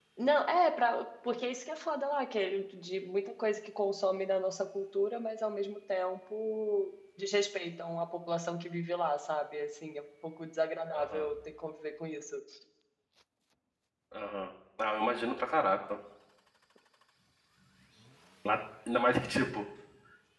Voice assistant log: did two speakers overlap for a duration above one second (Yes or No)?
No